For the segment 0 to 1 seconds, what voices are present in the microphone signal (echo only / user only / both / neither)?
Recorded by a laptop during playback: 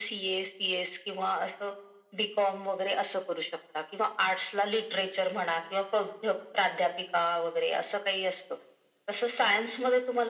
echo only